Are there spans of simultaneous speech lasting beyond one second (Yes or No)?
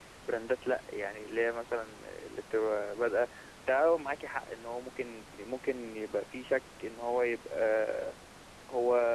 No